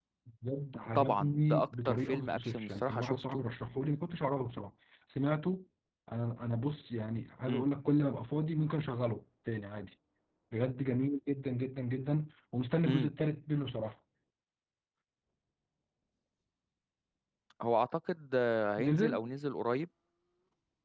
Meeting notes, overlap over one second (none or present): present